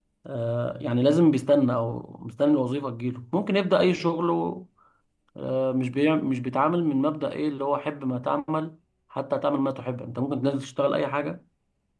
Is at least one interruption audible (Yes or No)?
No